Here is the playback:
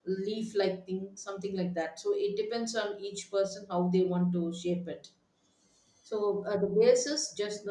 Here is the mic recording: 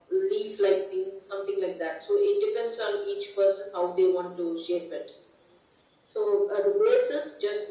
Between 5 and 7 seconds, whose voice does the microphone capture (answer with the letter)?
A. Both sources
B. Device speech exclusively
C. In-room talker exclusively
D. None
B